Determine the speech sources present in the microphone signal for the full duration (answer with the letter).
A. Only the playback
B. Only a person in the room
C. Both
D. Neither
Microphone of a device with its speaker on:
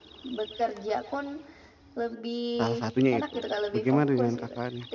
C